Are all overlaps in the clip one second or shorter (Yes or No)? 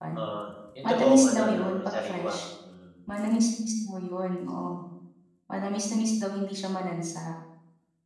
No